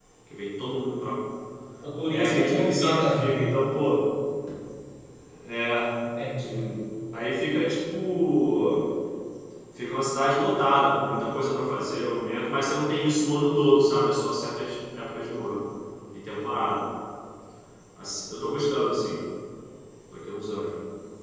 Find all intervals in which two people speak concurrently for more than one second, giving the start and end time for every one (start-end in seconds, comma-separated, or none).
2.1-3.3